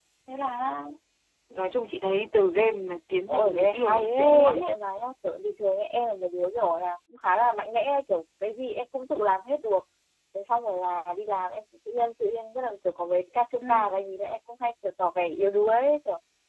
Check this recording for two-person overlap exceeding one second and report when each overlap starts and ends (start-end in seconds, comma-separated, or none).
3.3-4.7